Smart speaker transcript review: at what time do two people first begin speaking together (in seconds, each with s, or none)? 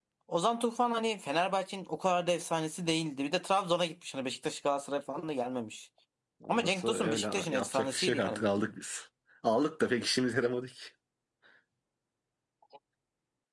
6.5 s